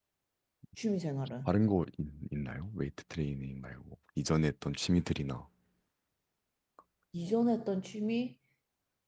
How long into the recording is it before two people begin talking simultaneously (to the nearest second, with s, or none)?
none